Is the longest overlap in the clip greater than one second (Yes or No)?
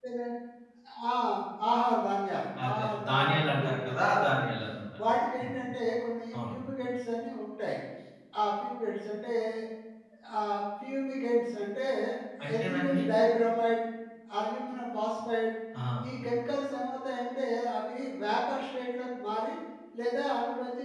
Yes